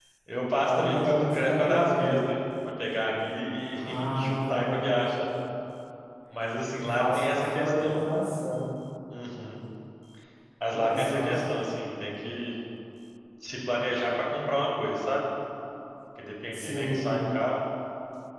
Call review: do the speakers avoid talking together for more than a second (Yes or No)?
No